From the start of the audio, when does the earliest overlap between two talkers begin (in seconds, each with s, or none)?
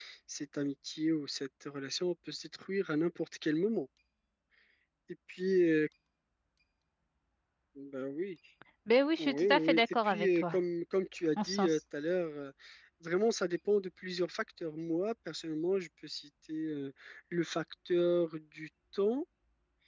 9.2 s